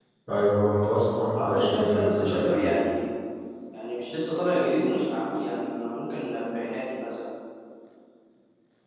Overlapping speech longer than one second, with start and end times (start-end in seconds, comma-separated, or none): 1.3-2.7